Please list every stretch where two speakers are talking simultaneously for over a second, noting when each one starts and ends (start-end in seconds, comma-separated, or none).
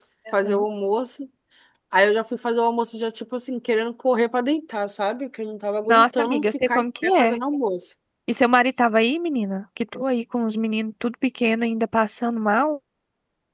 5.9-7.4